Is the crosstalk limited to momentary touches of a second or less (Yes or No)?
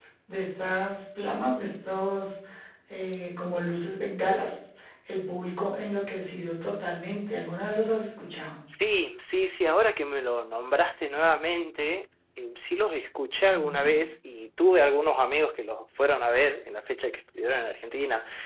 Yes